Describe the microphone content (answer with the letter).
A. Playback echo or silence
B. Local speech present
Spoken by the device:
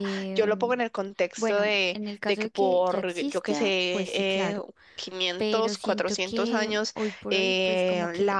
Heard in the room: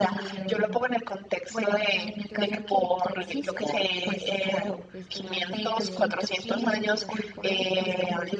B